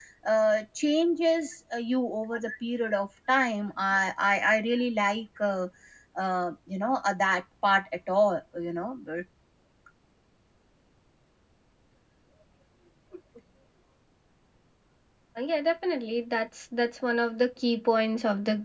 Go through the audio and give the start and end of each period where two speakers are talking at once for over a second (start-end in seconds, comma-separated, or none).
none